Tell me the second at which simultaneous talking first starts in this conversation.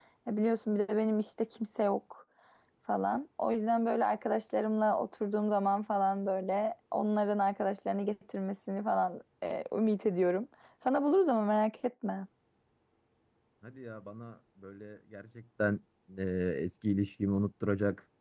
none

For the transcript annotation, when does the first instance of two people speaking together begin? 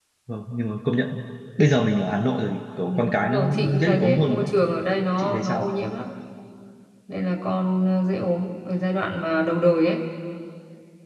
2.9 s

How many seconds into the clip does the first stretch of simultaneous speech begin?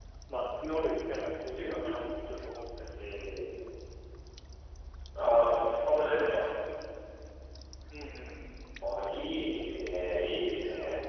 none

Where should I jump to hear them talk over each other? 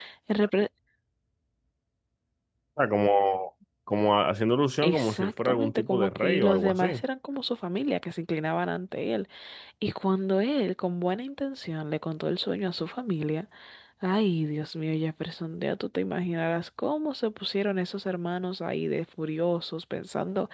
4.8 s

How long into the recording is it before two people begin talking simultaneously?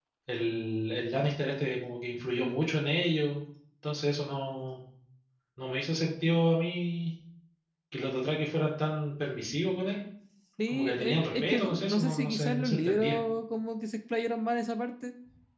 10.7 s

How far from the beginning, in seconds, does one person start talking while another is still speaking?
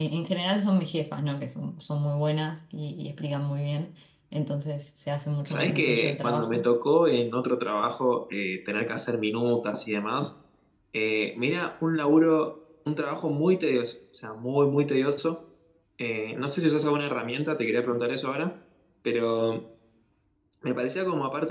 5.4 s

